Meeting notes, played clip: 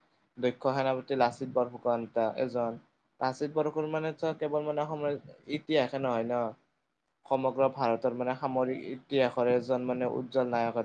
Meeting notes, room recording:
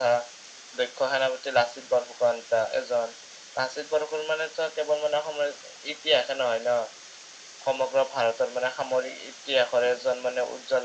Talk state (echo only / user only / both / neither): echo only